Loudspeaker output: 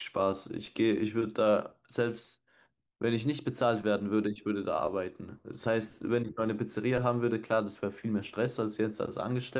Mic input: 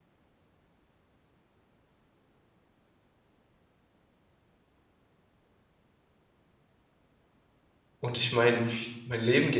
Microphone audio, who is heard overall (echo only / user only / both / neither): user only